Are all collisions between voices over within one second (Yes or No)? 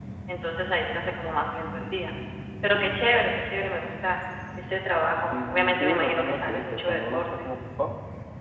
No